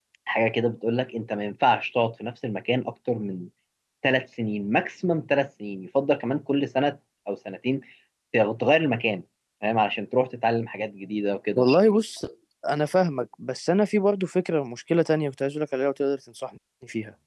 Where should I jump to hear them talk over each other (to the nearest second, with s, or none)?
none